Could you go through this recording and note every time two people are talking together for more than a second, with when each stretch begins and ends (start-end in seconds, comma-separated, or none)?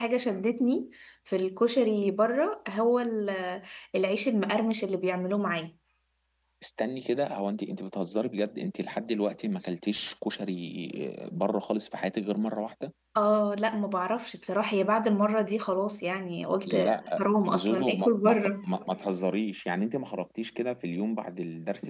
17.2-18.5